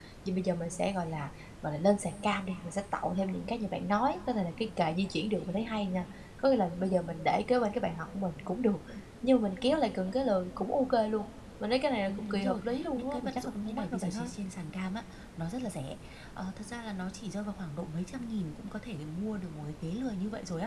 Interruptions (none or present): present